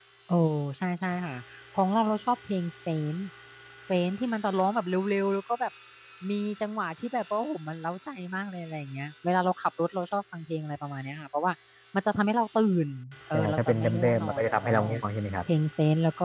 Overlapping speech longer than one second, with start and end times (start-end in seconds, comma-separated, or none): 13.3-15.0